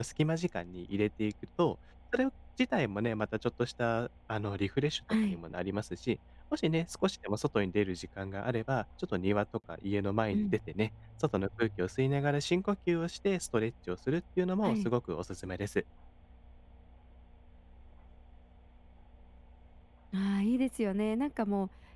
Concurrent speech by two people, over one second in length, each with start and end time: none

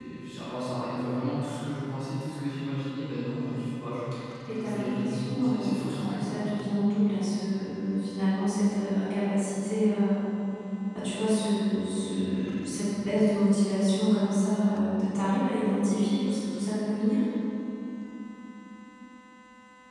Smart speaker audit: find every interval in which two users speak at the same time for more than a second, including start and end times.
4.5-6.5

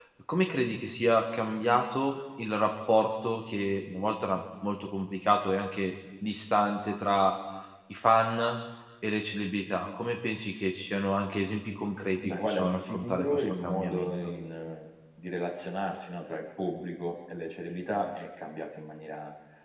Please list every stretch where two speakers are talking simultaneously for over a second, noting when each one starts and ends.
12.2-14.2

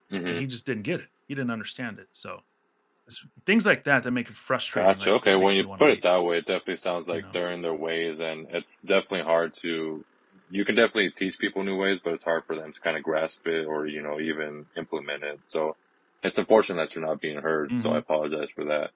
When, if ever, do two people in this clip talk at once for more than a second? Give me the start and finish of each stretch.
4.7-6.0

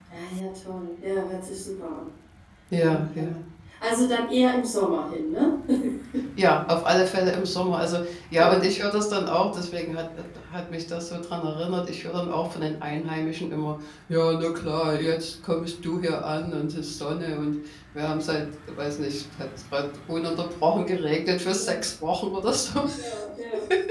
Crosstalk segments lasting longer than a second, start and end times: none

